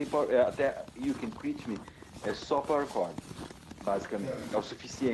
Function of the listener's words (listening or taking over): listening